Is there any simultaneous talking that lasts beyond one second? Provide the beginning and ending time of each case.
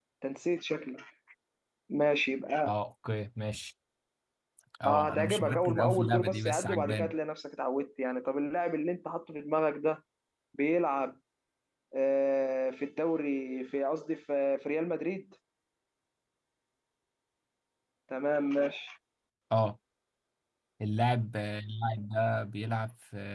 4.8-7.1

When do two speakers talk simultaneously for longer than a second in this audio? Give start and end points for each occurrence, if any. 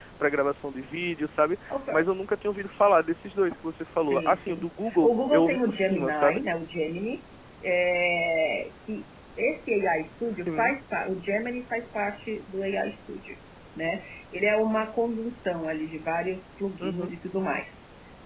4.1-6.4

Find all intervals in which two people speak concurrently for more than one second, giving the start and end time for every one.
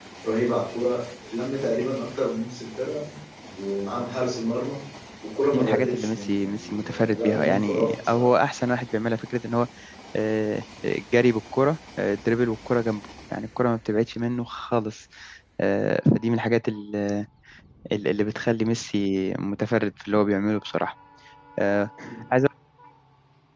5.5-8.3

